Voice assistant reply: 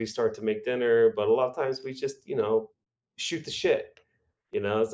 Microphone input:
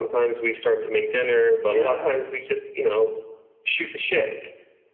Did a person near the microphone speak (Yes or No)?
Yes